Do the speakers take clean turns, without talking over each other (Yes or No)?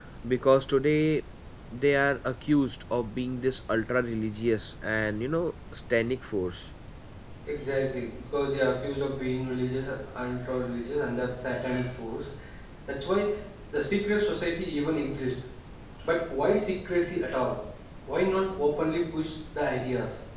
Yes